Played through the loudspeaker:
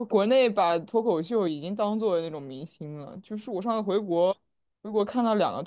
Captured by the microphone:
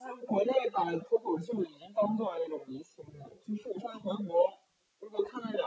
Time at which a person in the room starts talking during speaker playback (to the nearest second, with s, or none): none